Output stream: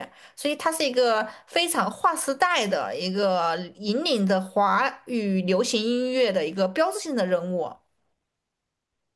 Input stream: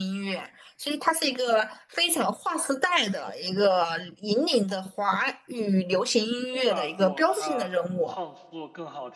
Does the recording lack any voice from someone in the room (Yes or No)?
No